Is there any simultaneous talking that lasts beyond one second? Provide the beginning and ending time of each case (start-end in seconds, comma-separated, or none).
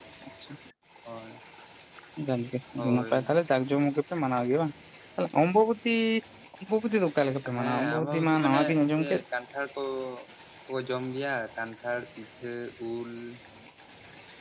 7.5-9.2